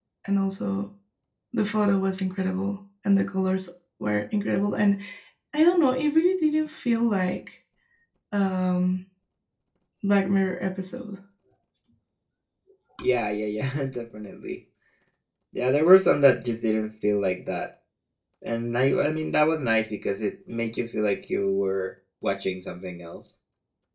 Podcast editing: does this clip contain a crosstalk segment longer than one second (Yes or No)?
No